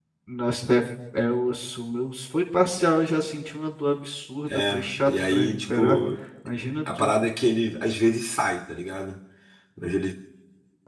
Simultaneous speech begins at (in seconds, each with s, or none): 4.5 s